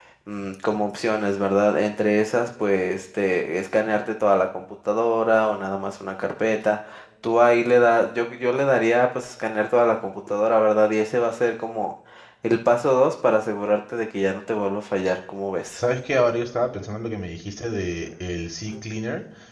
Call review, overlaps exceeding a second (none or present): none